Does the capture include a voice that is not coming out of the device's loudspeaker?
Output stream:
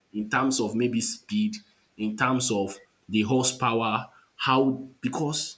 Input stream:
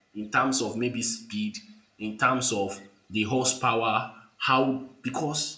No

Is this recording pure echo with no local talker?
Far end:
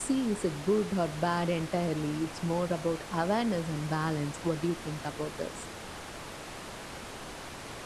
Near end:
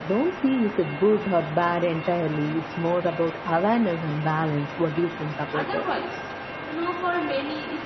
No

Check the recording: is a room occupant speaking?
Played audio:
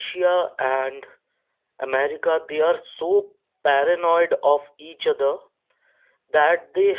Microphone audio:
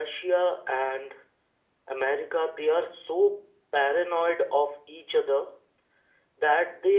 No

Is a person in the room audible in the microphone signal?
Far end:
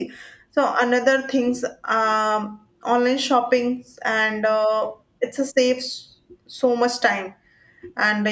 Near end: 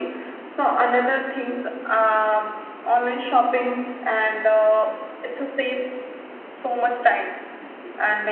No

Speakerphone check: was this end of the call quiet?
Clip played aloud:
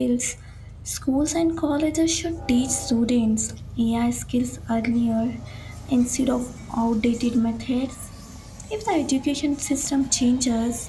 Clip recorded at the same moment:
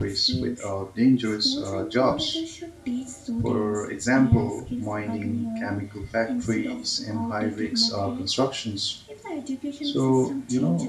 No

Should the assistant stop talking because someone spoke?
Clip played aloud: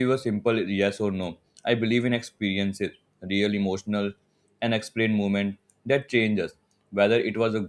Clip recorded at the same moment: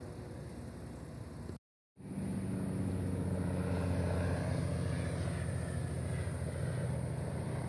No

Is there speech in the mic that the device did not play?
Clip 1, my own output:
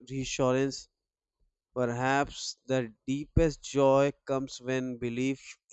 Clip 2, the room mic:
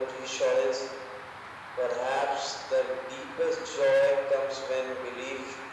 No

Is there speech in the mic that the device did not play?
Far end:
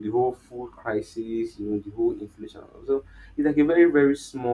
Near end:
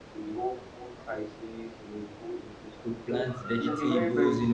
Yes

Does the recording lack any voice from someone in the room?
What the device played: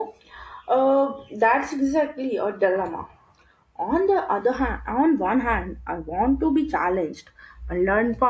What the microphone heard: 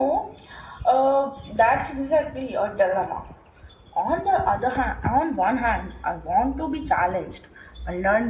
Yes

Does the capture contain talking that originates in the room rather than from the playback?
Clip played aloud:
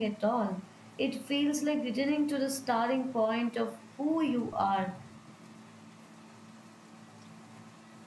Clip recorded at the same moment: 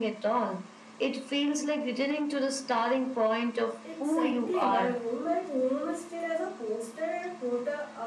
Yes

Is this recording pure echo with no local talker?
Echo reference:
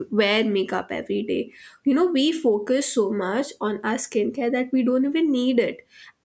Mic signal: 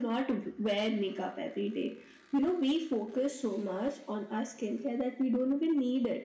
Yes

